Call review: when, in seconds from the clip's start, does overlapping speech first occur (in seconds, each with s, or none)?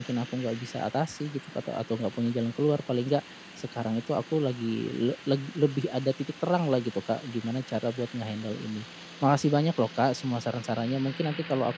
none